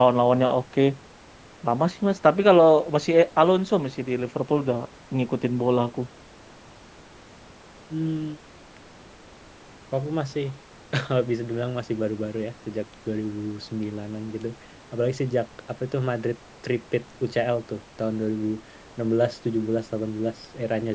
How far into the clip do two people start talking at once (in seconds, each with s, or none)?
none